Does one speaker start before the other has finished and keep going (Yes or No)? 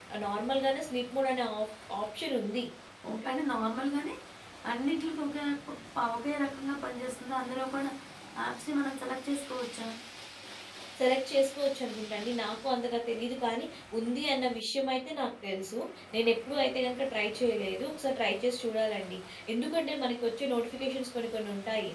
No